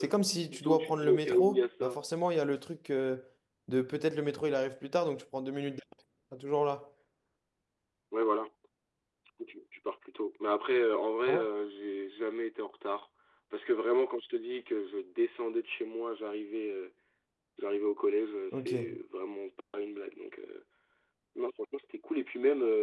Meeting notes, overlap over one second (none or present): present